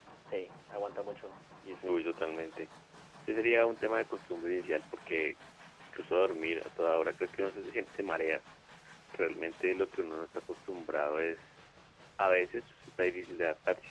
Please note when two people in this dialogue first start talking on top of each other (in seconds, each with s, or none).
none